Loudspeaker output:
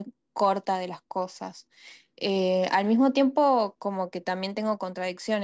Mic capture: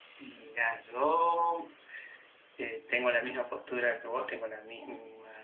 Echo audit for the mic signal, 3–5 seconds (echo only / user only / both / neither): user only